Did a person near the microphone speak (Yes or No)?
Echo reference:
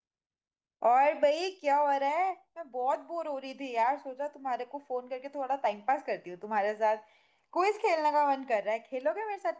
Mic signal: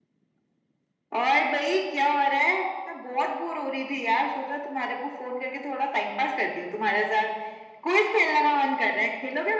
No